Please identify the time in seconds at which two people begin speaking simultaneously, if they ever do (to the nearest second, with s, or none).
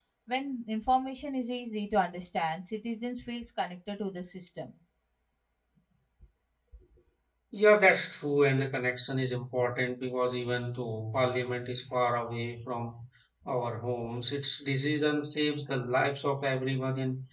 none